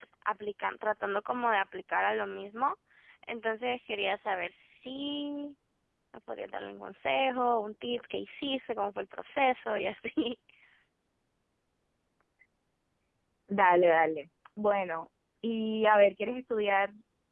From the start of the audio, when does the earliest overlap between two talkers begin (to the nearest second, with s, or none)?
none